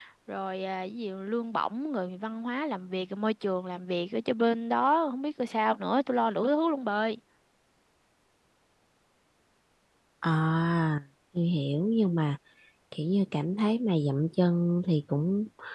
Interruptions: none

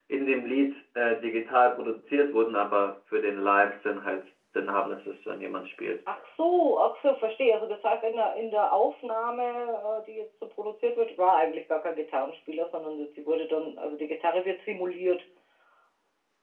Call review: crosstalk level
none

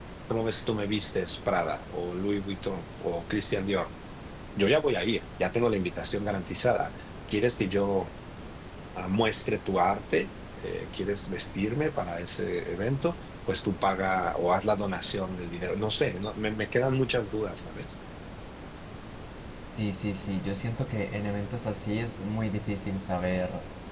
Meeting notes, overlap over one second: none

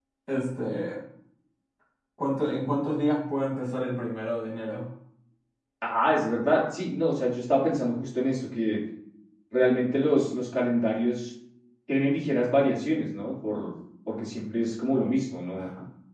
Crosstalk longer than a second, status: none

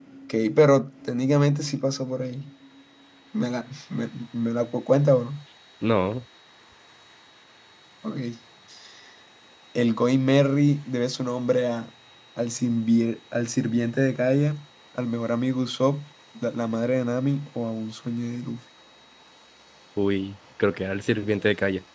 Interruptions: none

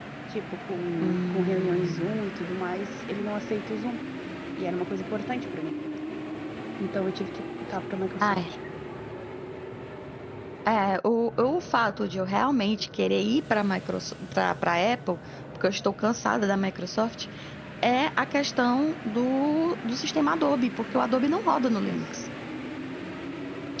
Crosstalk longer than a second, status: present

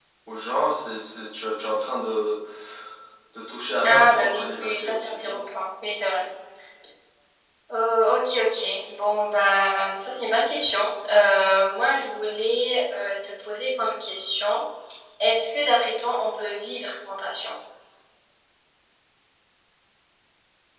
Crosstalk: present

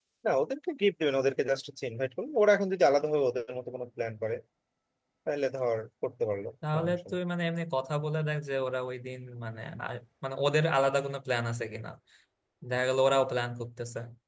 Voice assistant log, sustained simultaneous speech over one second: none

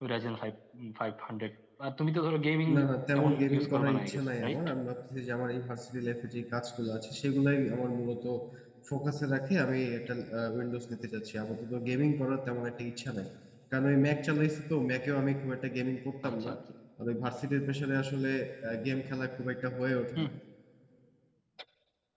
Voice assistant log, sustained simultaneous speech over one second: present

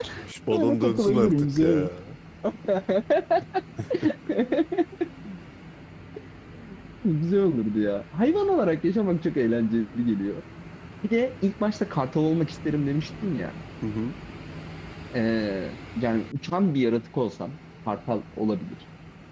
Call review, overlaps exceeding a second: present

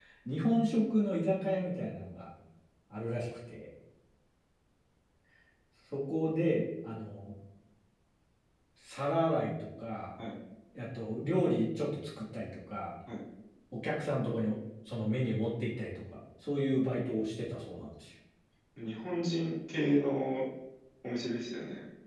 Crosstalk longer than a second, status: none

